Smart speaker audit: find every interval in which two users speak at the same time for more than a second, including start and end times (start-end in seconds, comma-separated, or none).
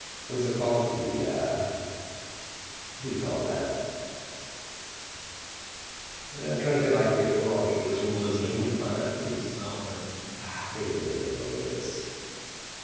7.8-9.5